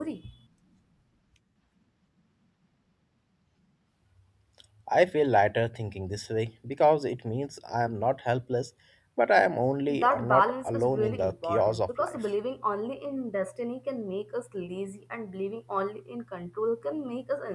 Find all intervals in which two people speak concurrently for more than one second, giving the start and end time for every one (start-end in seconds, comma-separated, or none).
9.9-12.2